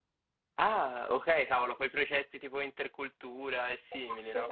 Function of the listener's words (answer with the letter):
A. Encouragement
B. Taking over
B